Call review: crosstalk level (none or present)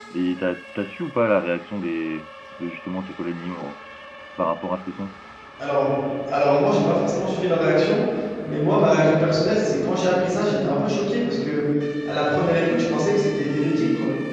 none